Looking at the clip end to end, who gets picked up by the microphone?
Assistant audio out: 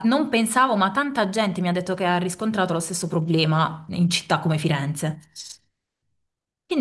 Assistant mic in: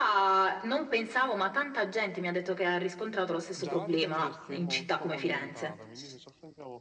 both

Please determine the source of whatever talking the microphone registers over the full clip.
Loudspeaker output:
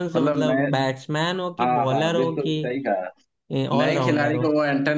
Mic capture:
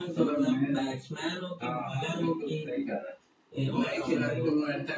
echo only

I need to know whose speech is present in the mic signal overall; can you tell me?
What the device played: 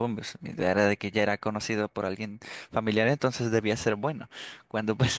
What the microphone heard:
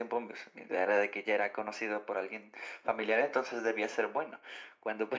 echo only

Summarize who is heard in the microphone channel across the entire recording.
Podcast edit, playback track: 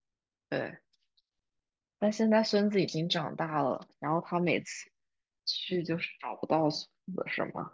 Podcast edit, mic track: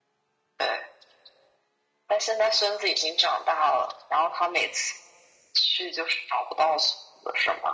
echo only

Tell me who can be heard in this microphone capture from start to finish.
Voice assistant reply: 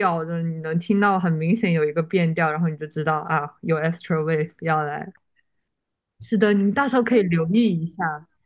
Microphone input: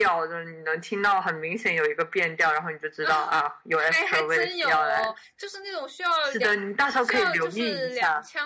both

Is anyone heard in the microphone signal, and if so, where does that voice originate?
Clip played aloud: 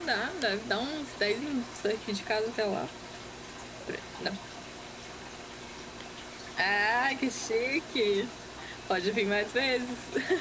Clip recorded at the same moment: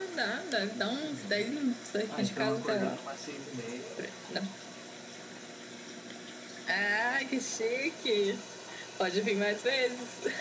both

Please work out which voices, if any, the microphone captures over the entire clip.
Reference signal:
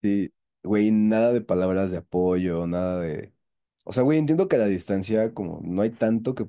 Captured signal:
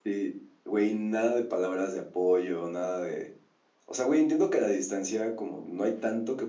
echo only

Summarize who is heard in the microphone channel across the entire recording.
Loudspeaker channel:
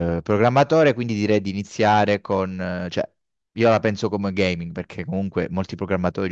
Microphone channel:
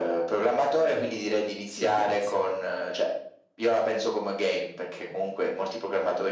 both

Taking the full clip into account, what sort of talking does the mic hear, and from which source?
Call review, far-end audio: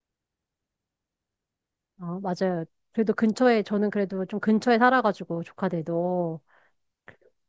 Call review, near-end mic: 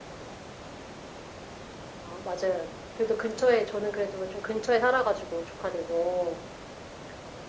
echo only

